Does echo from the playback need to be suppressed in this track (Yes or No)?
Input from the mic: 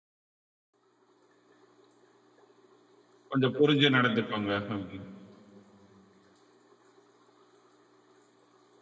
No